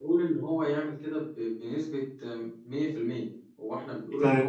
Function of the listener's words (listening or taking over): listening